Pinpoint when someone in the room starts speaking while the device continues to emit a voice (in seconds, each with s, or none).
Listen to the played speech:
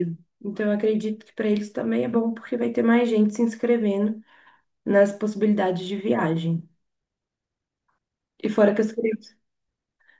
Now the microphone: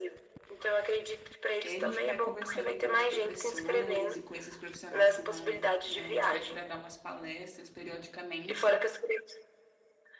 1.6 s